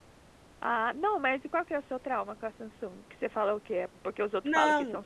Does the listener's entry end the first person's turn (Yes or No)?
Yes